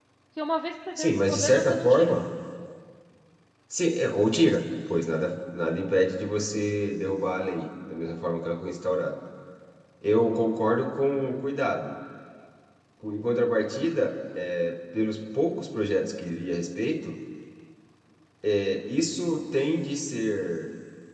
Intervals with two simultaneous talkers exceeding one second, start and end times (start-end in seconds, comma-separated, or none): 1.0-2.2